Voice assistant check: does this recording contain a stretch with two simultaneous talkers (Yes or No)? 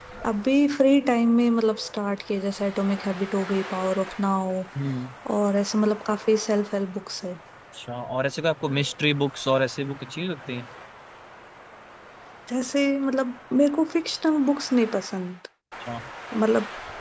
No